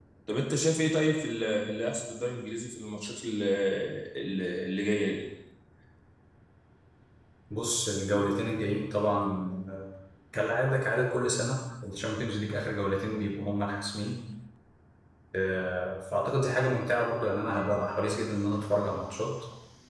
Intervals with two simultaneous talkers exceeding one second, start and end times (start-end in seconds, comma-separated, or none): none